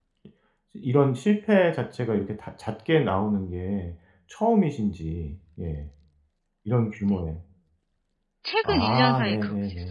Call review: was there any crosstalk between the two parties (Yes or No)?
Yes